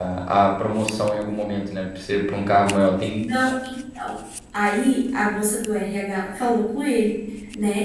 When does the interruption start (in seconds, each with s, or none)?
none